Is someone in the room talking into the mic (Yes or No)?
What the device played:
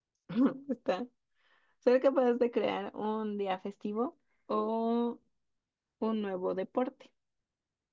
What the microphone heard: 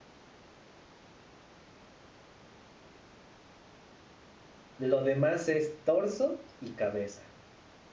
Yes